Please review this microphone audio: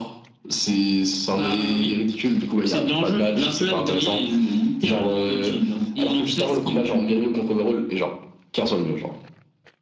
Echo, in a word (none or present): present